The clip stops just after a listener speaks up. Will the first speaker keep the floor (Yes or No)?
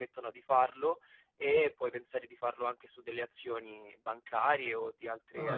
No